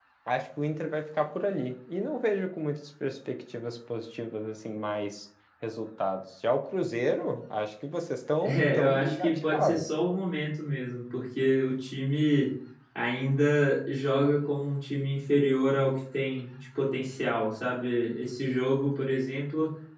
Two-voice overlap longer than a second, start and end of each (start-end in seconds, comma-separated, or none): 8.4-9.9